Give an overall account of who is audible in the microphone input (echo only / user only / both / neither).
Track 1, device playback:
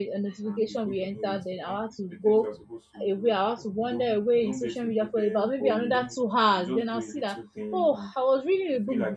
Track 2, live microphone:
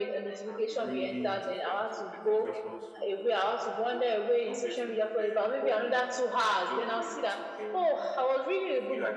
both